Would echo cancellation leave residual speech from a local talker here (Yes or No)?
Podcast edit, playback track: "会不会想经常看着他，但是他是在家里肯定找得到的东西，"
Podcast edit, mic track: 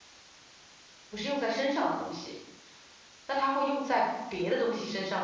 Yes